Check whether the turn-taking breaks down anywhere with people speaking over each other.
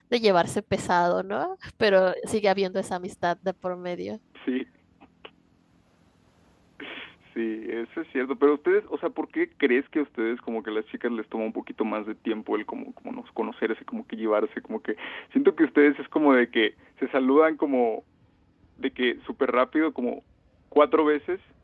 No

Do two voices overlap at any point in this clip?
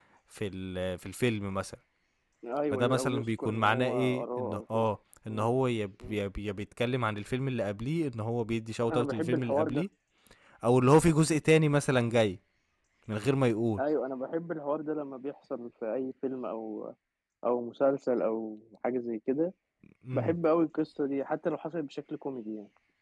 Yes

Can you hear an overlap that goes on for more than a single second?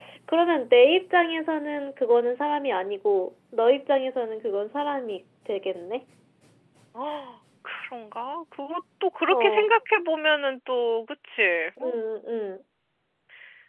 No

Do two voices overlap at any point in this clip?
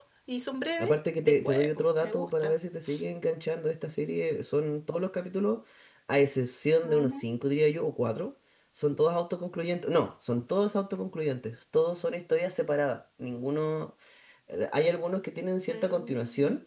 Yes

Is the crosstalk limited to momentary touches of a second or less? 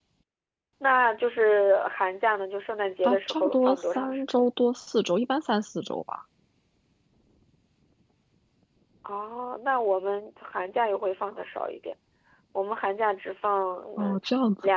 No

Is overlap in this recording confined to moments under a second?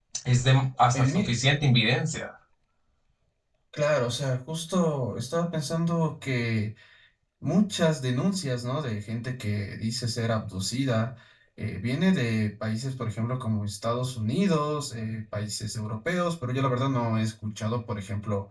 Yes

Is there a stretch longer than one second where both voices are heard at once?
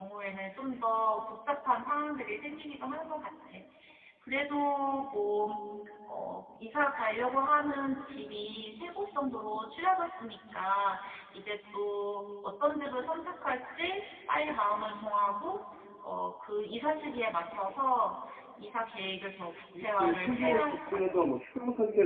Yes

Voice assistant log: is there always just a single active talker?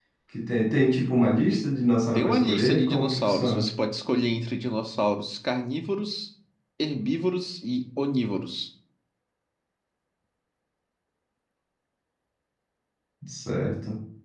No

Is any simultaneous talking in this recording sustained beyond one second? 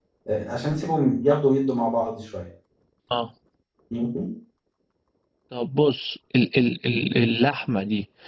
No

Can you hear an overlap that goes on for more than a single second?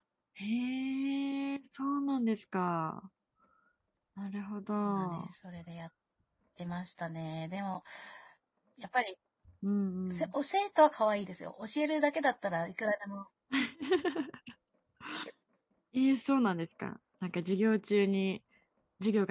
No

